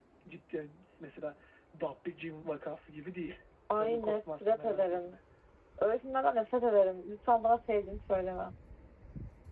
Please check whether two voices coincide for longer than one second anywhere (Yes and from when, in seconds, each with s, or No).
Yes, from 3.8 s